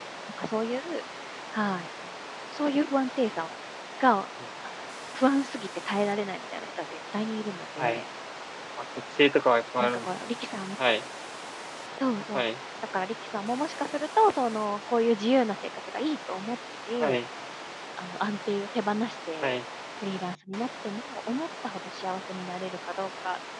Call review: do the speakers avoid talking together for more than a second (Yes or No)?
Yes